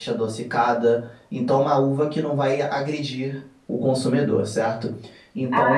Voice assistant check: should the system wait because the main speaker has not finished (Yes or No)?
No